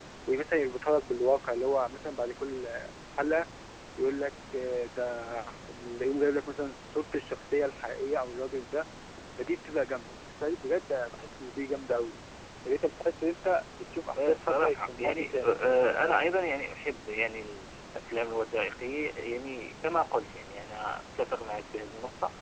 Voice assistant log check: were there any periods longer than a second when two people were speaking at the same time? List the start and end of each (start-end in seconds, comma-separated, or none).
14.2-15.5